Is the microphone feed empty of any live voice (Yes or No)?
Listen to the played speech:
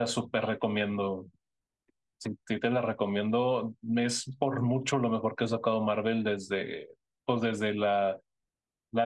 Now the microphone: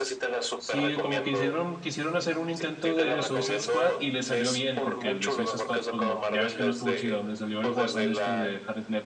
No